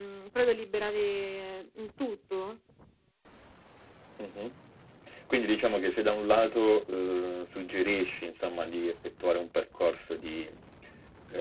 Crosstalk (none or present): none